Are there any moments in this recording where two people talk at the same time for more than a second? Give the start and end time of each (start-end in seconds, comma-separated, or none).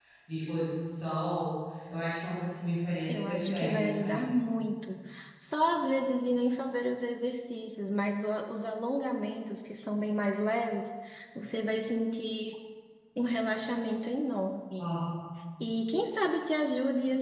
3.1-4.4